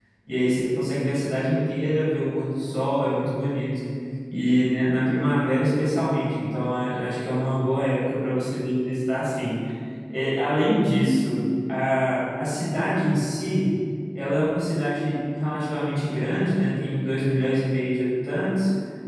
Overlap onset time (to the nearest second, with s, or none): none